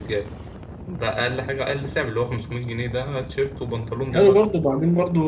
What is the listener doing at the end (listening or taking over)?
taking over